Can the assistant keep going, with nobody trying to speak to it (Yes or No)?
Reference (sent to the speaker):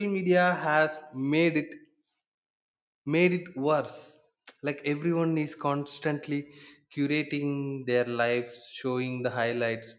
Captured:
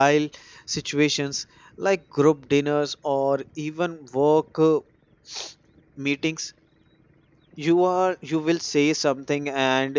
No